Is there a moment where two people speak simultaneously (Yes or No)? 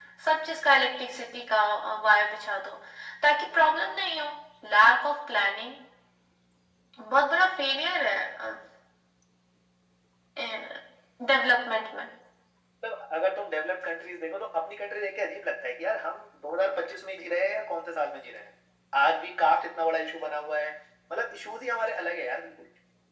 No